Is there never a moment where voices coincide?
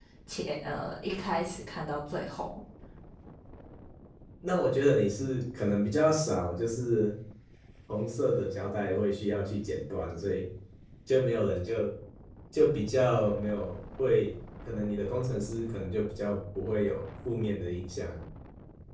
Yes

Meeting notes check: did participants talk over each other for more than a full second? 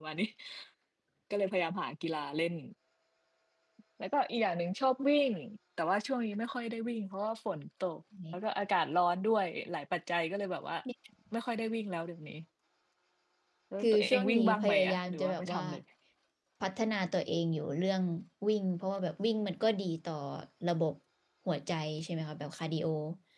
Yes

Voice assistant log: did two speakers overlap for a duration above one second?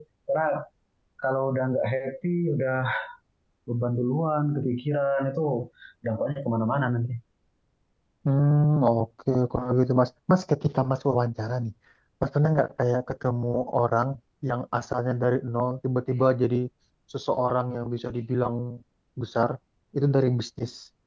No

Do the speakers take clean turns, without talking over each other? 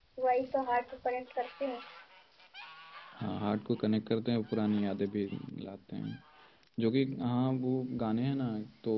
Yes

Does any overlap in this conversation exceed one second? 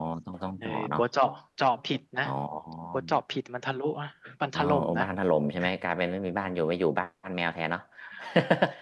No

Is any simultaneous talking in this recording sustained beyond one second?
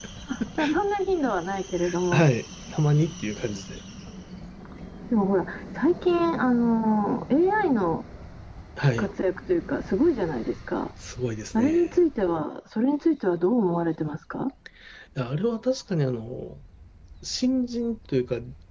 No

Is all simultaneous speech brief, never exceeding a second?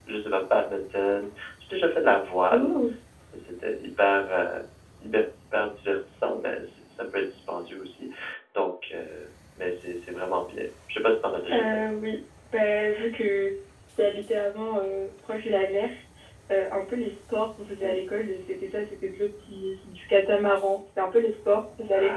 Yes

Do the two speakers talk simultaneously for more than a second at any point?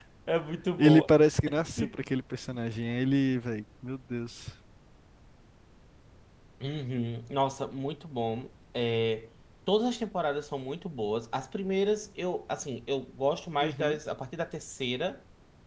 No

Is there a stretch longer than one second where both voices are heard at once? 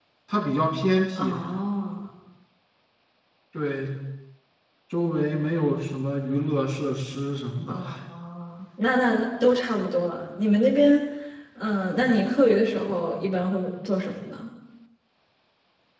No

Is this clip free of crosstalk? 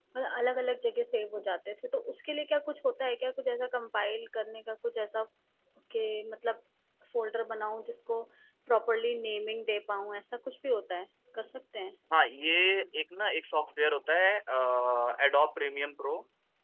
Yes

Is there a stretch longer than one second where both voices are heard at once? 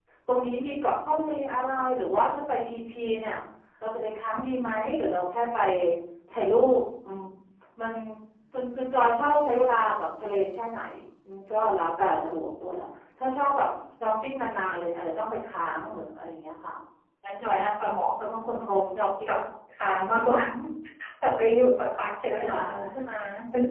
No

